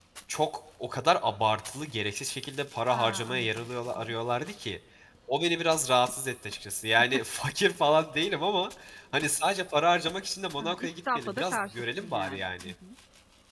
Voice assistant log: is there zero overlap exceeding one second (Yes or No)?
No